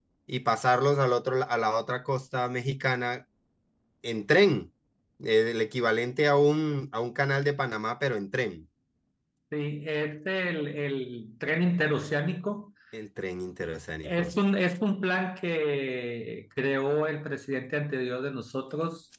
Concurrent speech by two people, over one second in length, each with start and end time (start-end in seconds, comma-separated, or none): none